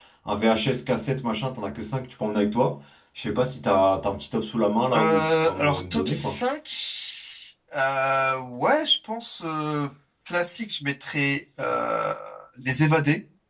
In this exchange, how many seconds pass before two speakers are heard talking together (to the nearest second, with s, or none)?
5 s